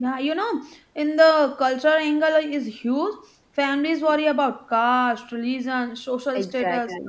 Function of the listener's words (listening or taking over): listening